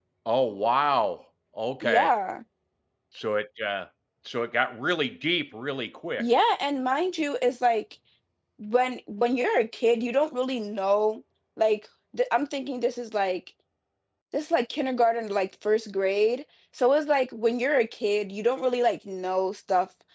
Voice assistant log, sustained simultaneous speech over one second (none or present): none